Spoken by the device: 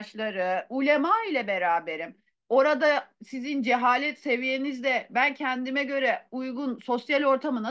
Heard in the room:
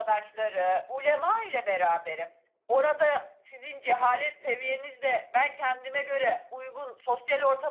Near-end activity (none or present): none